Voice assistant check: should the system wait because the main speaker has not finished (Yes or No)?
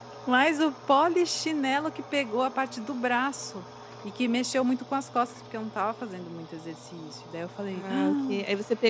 No